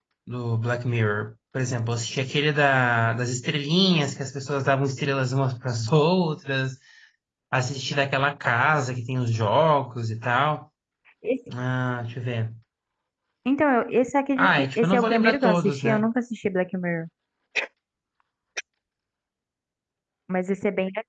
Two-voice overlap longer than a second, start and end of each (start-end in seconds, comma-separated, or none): 14.4-16.1